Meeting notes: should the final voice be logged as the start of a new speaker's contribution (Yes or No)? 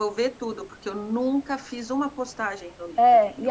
Yes